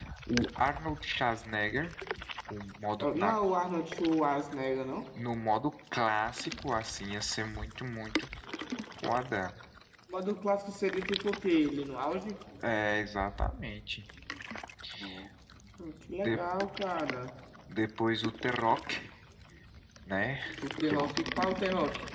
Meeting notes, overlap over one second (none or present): none